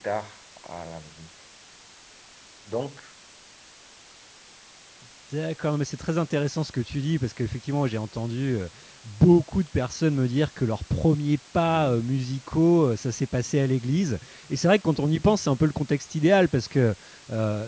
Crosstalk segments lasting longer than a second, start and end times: none

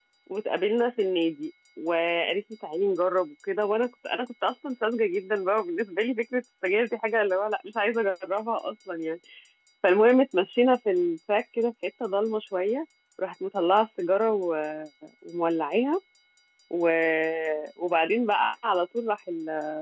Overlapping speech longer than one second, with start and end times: none

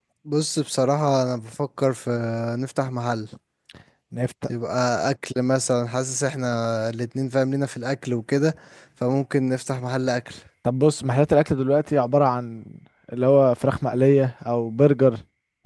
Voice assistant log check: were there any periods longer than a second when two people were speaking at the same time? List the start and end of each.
none

